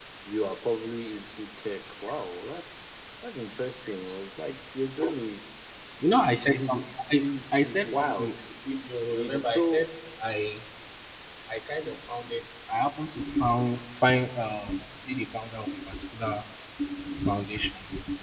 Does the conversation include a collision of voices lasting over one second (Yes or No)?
Yes